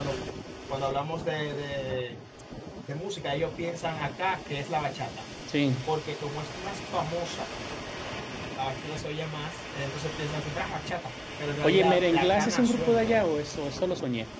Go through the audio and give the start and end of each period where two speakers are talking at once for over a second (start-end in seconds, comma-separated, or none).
11.6-13.4